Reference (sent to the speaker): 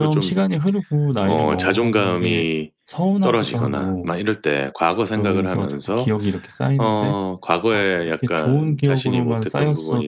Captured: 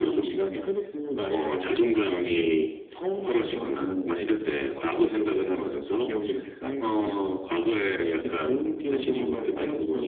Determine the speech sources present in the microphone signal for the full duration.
echo only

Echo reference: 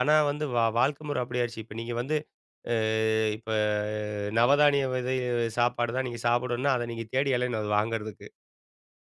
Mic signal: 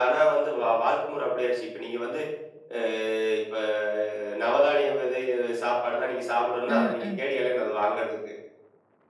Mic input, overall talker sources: both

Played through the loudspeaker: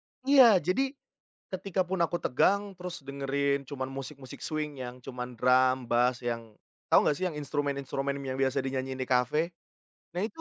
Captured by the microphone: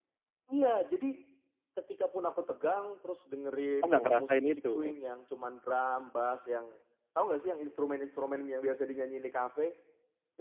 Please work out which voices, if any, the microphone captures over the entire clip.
both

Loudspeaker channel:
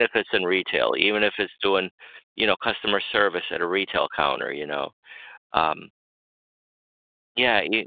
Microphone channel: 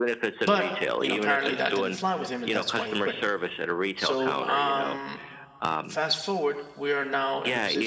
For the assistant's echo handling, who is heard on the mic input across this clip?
both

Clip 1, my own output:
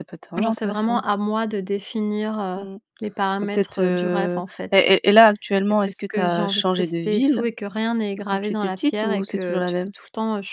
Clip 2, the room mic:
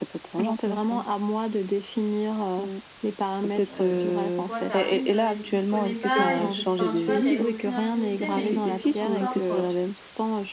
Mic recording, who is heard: both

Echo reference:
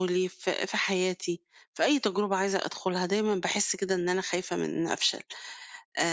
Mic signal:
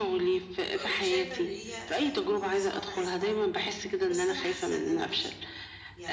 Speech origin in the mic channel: both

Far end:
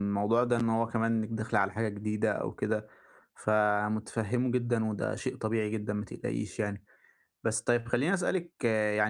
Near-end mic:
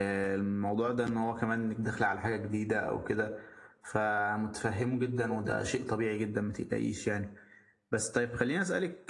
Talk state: echo only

